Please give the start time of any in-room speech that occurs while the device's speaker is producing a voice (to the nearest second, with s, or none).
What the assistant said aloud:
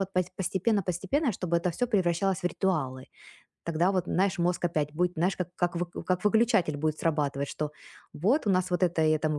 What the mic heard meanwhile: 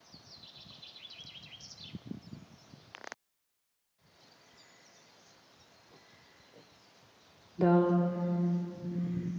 8 s